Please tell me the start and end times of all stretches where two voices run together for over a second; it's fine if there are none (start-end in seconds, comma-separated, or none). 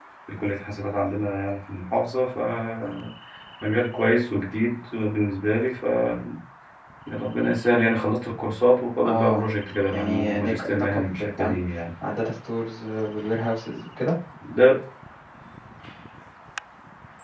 9.9-11.6